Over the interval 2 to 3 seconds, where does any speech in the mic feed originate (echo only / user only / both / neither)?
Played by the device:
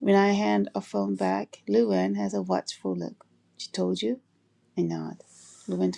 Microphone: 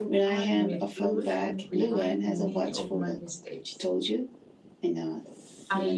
both